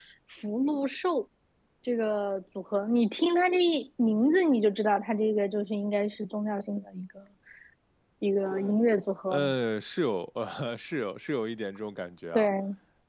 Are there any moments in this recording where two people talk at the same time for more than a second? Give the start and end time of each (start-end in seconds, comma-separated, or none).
none